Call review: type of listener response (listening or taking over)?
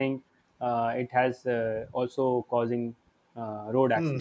taking over